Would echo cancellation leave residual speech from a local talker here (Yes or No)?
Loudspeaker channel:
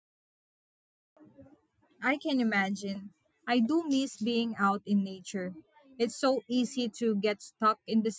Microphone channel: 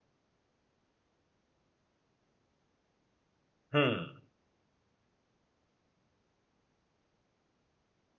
Yes